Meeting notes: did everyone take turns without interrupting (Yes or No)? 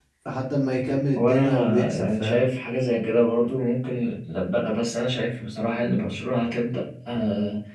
No